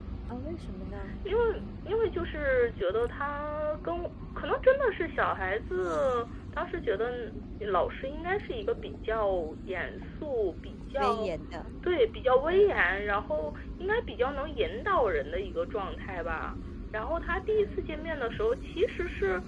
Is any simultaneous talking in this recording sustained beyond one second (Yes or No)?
No